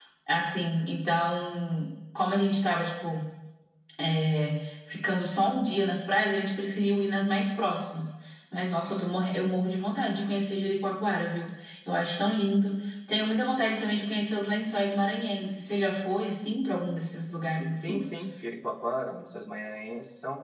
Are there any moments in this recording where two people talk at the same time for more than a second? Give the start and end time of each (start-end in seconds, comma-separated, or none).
none